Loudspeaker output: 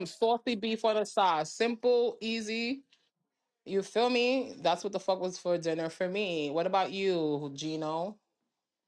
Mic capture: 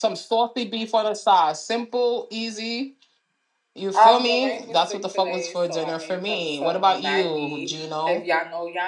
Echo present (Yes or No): Yes